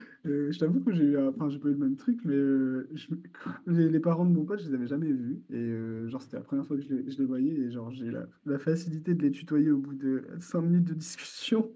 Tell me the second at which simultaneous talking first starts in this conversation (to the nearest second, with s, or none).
none